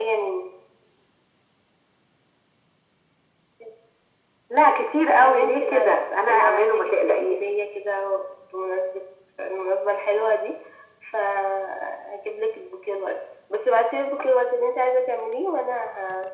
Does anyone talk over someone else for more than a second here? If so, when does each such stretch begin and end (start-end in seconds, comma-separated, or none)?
5.2-7.4